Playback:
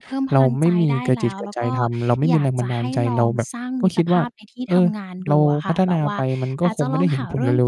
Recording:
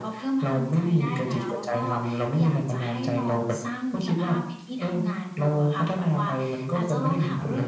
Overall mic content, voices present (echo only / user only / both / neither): echo only